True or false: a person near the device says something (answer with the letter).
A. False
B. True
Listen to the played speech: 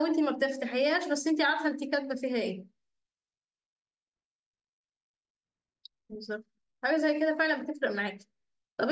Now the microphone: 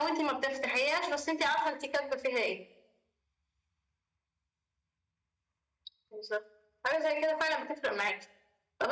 A